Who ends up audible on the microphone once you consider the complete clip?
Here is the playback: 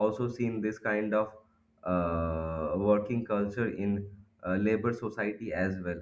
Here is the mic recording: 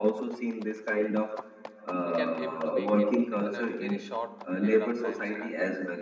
both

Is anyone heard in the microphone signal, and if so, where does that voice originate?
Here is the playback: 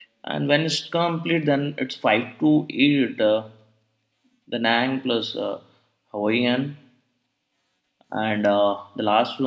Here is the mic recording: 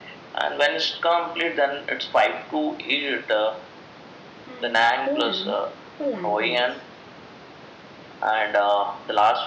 both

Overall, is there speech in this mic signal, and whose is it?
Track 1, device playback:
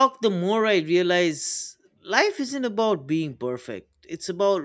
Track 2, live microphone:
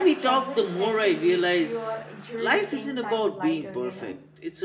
both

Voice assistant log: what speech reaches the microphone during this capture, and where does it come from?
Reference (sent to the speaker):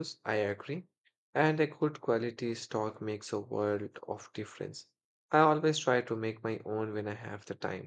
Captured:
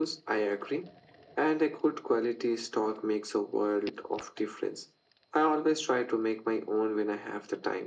echo only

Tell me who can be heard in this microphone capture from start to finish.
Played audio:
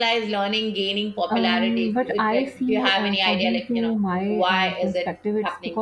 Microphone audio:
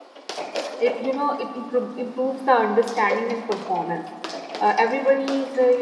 user only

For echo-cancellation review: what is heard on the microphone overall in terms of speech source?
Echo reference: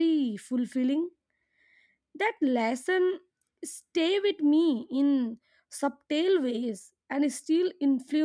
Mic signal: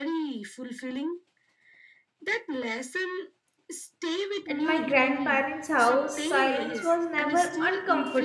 both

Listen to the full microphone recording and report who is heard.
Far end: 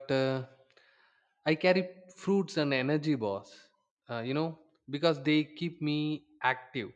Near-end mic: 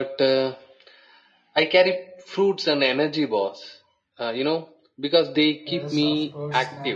both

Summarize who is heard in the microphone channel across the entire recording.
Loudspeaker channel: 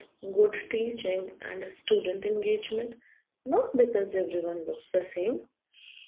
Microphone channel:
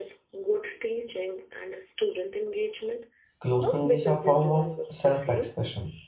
both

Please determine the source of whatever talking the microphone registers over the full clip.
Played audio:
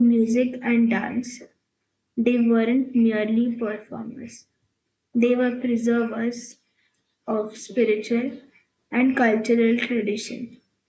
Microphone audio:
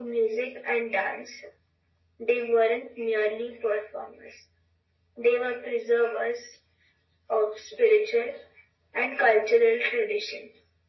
echo only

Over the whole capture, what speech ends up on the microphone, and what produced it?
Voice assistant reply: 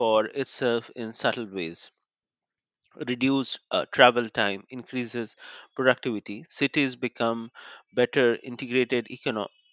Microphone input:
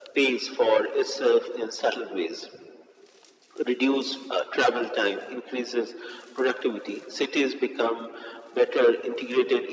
echo only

